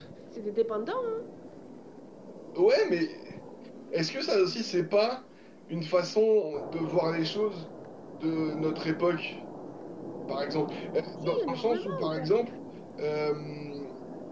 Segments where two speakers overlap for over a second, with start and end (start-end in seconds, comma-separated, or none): 11.0-12.3